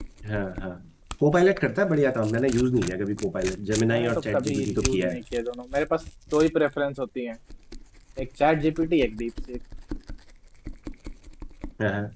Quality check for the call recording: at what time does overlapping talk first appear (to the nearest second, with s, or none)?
4 s